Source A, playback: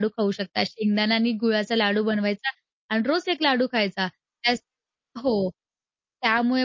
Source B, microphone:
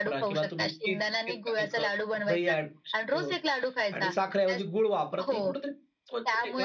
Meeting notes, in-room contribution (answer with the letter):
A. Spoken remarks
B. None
A